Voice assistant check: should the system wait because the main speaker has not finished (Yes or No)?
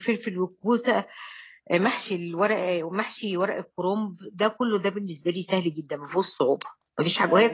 Yes